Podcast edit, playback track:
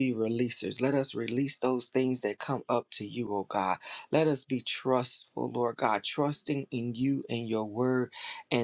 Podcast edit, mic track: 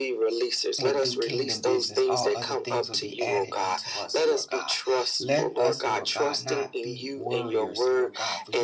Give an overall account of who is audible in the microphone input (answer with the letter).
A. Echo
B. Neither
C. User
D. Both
D